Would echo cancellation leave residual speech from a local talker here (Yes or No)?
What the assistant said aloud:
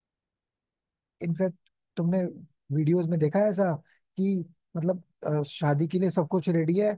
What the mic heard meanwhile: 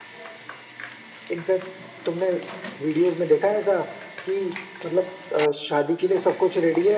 No